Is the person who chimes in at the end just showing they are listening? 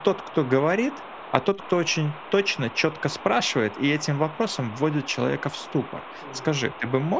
Yes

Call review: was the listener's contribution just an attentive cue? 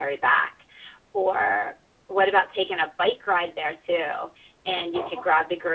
Yes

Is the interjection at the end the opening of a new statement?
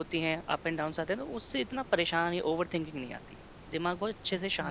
Yes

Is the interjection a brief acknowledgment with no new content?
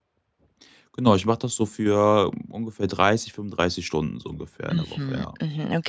No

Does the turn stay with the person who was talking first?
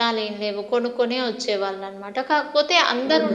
Yes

